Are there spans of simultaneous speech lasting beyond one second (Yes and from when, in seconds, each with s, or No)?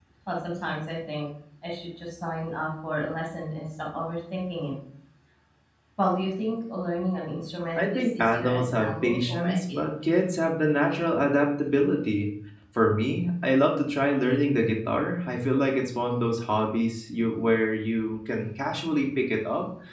Yes, from 7.8 s